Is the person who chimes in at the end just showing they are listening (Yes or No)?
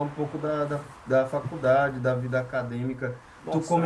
Yes